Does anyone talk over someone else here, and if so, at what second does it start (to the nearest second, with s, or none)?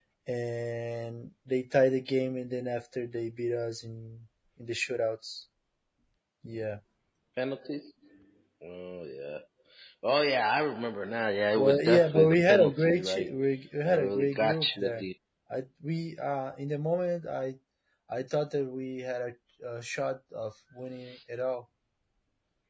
12 s